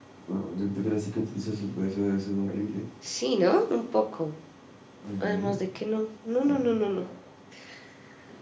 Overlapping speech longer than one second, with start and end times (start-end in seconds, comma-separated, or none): none